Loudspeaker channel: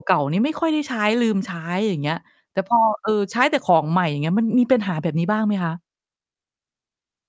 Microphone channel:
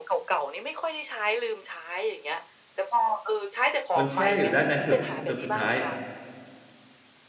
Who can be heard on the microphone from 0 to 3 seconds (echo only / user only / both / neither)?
echo only